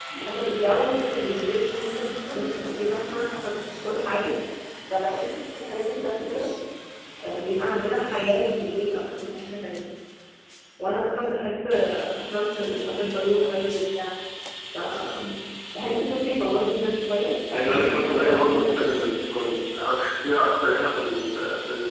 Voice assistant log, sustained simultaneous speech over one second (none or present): present